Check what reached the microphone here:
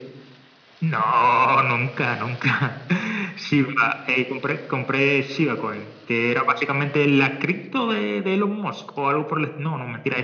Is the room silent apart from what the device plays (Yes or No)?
Yes